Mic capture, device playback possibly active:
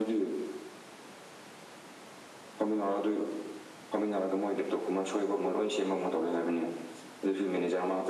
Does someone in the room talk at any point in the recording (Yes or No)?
No